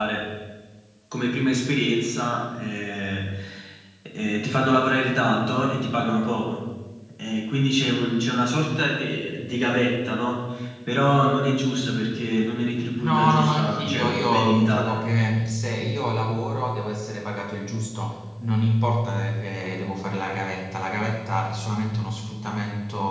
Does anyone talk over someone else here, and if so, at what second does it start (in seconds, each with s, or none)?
13.0 s